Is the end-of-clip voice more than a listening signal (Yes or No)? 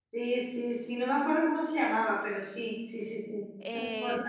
Yes